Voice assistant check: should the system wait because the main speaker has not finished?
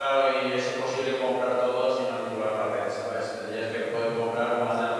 Yes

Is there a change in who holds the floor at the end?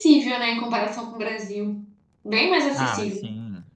Yes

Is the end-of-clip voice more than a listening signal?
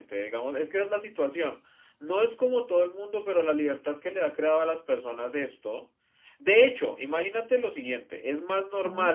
No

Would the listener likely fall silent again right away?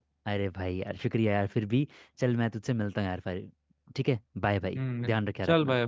No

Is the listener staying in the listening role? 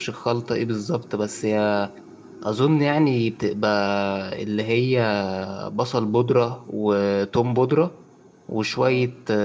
Yes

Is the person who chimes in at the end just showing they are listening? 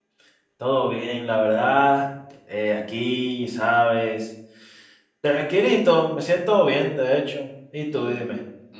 No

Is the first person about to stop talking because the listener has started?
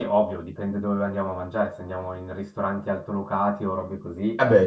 No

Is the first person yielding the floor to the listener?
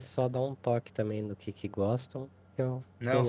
Yes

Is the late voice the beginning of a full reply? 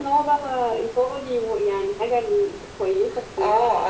Yes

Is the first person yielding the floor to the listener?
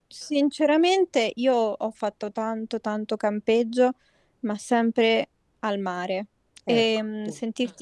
No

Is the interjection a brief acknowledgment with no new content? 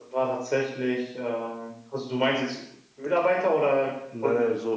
No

